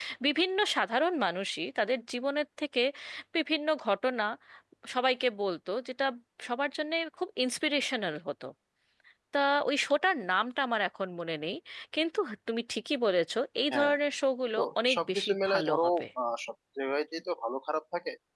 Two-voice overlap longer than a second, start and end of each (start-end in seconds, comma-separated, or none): 14.6-15.8